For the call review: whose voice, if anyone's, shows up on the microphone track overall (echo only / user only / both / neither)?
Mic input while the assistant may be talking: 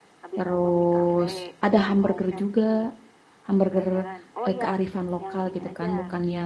both